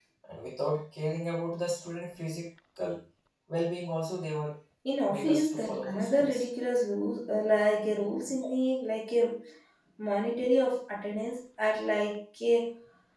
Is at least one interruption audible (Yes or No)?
Yes